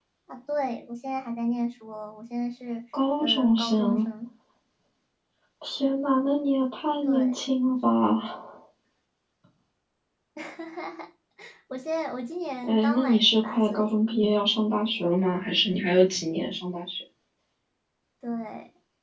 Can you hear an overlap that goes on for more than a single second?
Yes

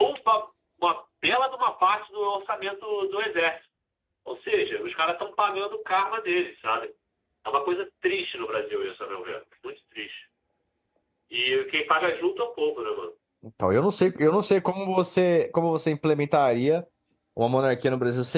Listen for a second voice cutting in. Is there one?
No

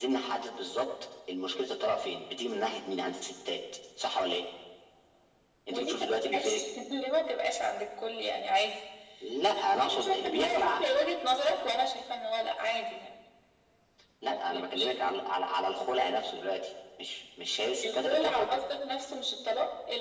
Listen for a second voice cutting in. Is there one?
Yes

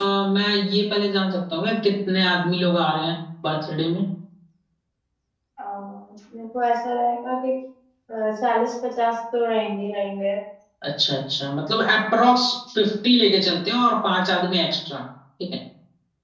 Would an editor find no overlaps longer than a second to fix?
Yes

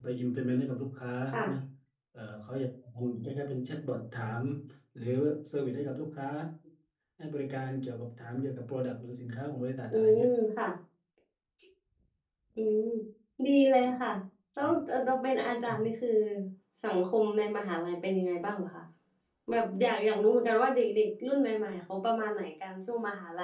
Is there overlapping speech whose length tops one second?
No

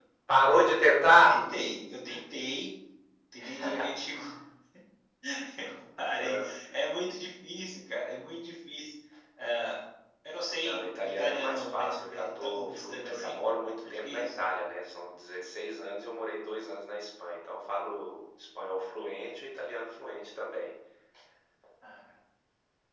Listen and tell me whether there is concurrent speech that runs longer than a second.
Yes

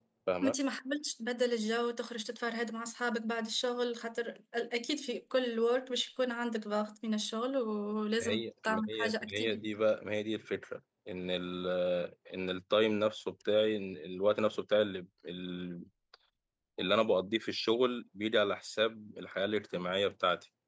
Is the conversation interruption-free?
No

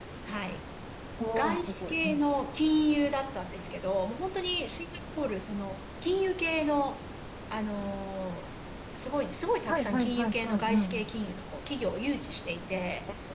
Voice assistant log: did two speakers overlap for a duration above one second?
Yes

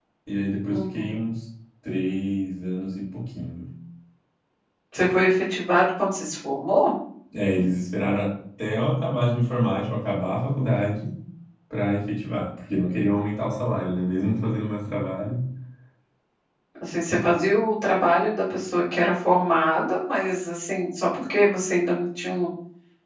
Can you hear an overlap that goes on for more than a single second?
No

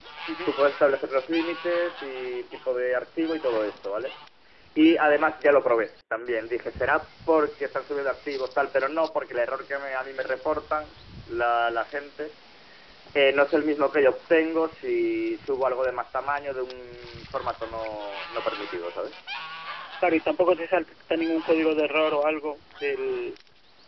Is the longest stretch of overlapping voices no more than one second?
Yes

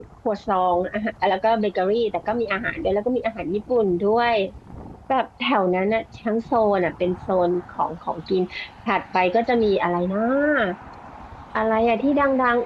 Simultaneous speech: No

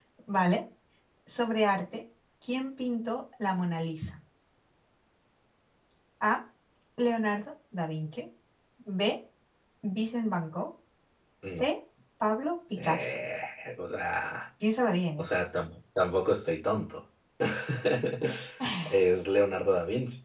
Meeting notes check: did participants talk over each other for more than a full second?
No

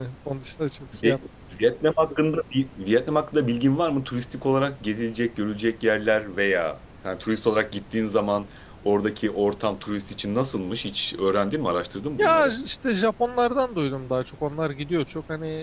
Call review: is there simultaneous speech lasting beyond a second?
No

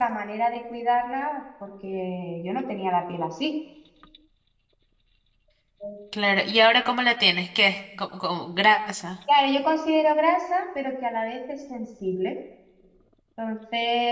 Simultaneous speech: No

